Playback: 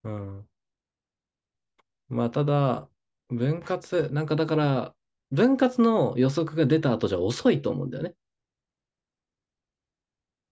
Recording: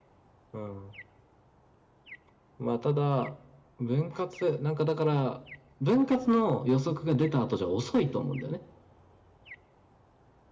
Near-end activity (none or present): none